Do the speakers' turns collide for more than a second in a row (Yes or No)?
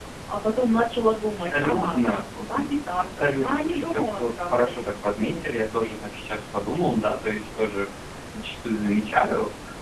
Yes